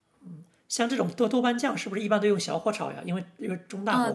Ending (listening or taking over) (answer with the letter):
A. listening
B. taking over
B